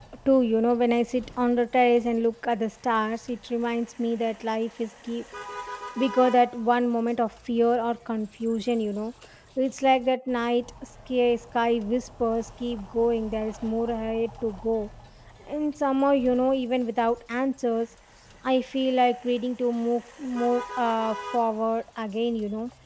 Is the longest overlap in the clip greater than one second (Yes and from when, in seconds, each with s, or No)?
No